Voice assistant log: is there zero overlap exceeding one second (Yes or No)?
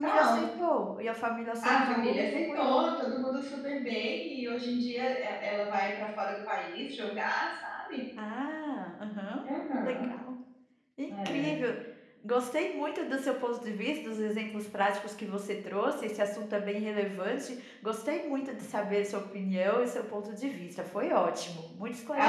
No